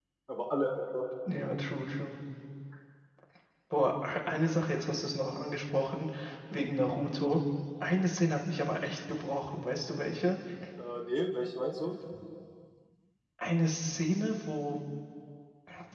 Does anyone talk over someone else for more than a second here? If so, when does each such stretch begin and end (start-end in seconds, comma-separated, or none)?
none